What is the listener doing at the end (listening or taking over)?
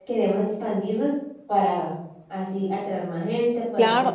taking over